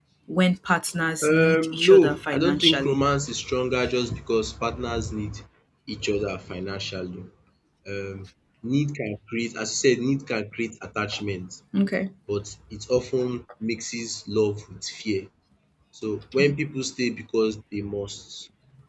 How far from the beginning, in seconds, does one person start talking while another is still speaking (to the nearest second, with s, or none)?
1 s